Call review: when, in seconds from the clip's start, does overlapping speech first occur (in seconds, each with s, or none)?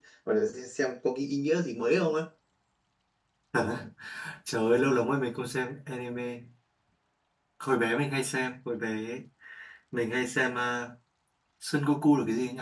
none